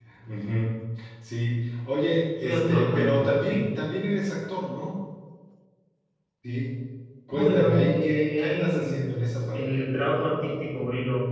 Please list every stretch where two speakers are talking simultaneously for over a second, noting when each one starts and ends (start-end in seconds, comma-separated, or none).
2.4-3.7, 7.3-9.0